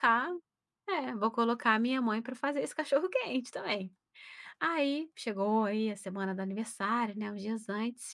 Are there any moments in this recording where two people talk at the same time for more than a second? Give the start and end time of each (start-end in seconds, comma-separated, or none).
none